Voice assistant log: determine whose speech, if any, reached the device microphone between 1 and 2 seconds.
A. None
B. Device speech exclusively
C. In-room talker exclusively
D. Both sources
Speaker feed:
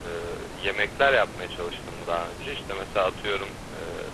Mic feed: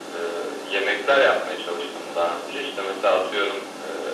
B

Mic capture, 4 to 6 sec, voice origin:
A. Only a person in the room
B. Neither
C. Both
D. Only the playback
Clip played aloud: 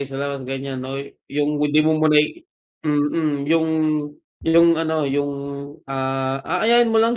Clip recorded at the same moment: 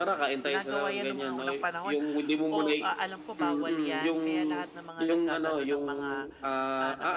C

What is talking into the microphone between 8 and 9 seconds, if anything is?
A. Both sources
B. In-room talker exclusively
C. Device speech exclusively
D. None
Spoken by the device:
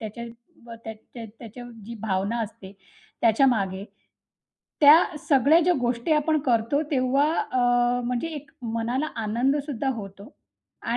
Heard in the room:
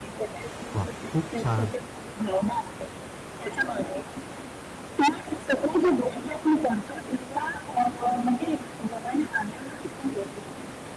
C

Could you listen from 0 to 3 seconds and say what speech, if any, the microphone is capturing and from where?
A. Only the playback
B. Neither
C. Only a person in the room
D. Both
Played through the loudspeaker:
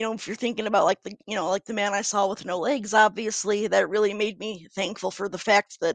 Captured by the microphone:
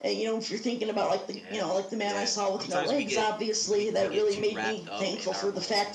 D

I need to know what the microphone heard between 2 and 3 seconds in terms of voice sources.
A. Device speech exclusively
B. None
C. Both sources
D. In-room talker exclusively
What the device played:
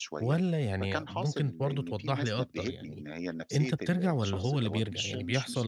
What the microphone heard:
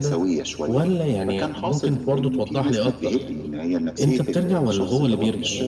A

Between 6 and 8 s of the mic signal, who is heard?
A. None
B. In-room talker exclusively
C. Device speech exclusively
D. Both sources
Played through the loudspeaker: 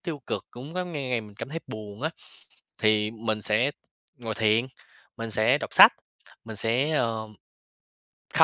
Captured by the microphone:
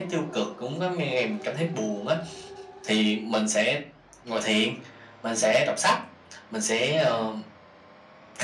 C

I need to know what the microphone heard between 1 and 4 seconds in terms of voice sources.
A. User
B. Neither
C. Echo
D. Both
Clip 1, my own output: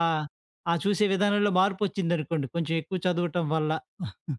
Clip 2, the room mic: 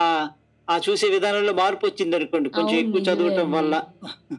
D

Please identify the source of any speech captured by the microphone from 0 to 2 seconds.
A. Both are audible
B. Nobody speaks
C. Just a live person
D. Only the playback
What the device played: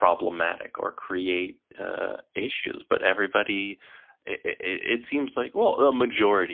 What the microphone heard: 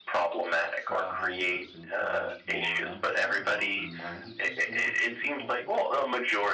A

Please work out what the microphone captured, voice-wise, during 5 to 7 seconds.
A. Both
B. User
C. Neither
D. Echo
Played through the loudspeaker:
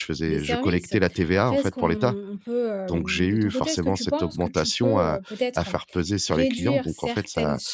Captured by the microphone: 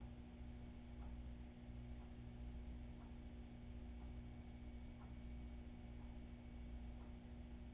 C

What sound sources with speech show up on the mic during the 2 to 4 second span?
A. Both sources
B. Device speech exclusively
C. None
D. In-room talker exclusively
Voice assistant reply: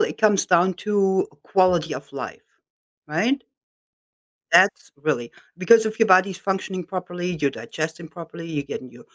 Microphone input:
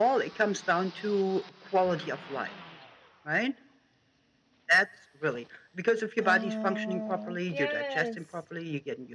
B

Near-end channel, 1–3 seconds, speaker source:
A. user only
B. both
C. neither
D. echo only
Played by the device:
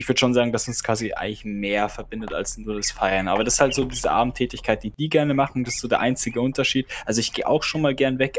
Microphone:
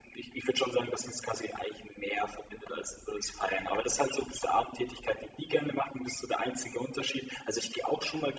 D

